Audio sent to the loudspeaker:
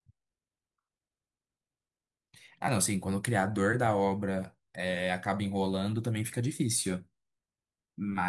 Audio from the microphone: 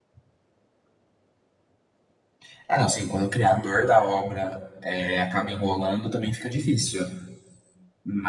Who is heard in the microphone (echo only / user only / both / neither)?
echo only